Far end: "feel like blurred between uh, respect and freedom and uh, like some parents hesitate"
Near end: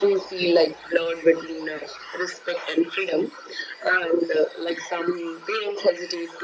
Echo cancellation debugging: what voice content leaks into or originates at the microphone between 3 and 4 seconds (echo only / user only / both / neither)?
echo only